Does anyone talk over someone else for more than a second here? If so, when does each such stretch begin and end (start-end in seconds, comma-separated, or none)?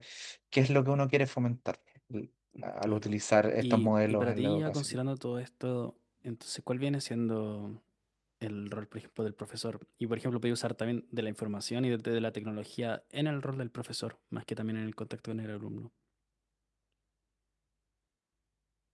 3.6-4.9